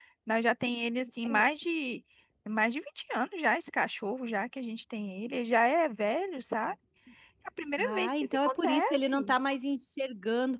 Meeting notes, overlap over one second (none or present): present